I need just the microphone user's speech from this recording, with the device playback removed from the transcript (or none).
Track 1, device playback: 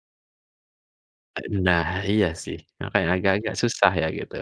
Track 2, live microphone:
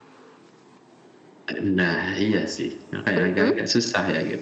Mhm.